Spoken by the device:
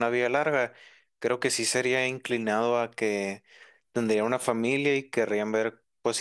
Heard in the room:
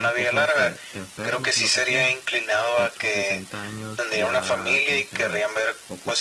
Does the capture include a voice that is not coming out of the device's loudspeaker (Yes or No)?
Yes